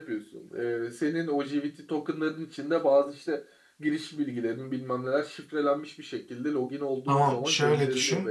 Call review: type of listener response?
taking over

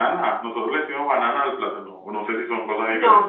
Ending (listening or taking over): taking over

